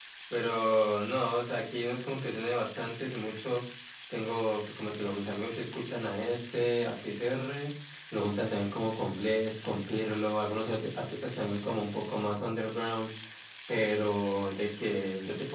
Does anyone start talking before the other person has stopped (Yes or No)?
No